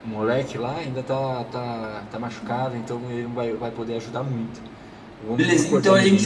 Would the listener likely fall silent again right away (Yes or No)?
No